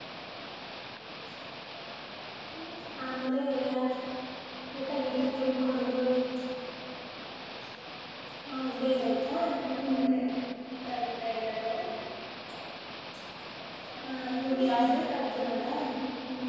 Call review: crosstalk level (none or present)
present